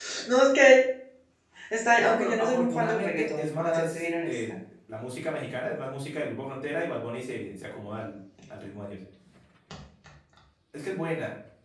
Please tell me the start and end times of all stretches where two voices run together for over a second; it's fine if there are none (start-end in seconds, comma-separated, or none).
1.9-4.4